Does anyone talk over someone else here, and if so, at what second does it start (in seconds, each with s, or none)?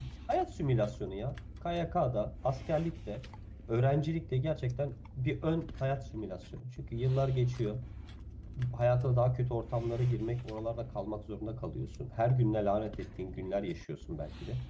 none